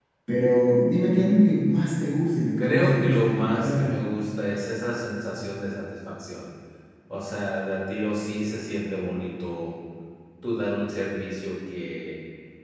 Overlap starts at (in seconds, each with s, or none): 2.6 s